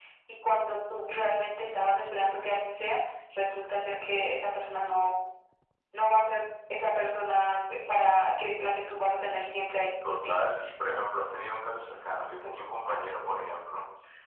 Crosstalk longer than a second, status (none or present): none